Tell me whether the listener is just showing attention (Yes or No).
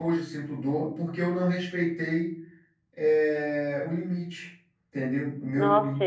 No